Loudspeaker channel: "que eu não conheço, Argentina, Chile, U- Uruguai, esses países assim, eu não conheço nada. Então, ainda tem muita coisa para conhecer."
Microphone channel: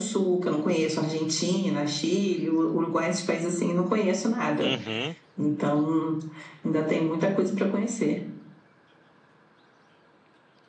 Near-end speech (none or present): present